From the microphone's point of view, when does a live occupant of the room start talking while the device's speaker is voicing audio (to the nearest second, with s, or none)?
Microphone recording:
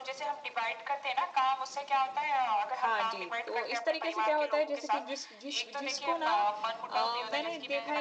3 s